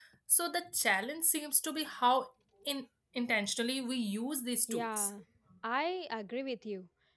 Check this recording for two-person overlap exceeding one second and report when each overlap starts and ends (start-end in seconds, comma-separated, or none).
none